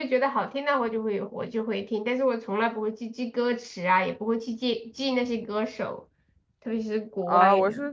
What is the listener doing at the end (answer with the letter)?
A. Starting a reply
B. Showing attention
A